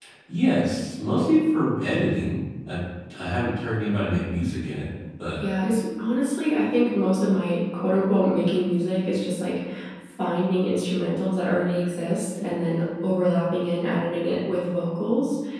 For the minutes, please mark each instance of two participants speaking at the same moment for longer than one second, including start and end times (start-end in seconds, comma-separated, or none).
none